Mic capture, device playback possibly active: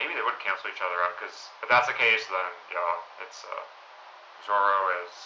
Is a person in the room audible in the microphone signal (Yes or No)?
No